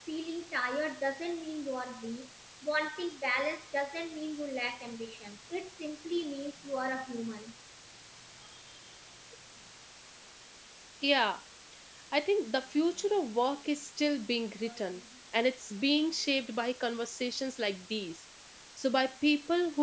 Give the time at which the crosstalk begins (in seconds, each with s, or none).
none